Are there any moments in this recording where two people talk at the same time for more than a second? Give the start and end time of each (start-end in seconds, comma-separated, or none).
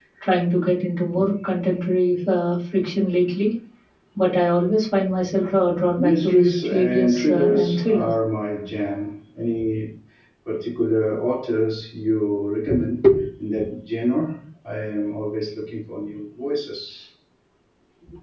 6.0-8.1